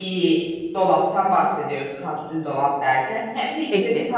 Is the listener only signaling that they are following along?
Yes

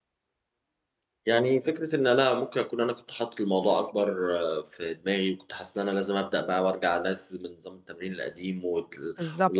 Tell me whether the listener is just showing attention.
Yes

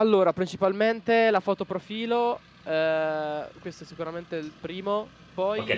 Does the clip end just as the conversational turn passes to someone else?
Yes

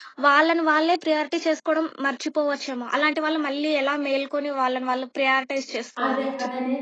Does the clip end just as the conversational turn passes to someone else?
Yes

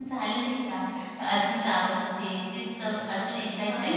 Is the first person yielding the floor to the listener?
Yes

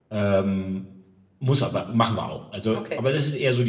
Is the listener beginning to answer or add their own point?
No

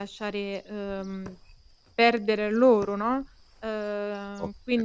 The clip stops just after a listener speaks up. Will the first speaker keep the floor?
No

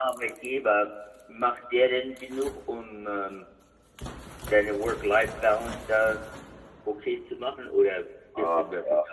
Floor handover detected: Yes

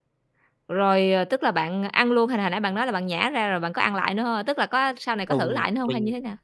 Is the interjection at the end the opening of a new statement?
Yes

